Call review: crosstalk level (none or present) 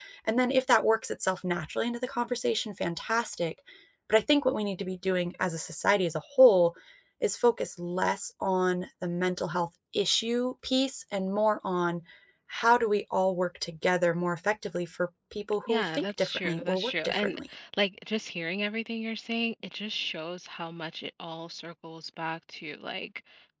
present